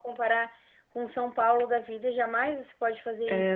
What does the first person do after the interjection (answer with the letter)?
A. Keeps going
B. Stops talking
B